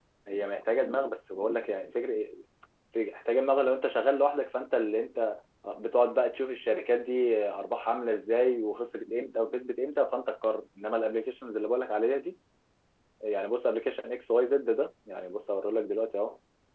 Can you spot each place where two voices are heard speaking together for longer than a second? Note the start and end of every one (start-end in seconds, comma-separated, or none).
none